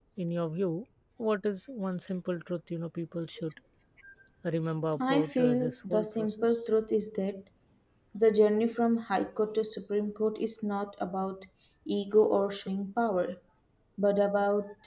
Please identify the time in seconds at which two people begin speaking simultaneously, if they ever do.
5.1 s

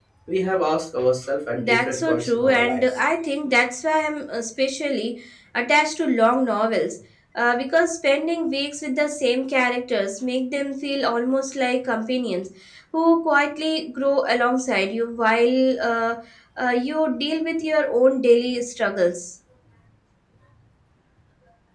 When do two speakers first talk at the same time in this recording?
1.5 s

